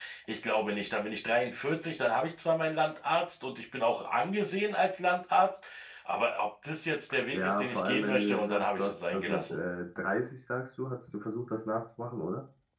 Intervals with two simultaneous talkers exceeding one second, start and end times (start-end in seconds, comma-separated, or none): 7.3-9.6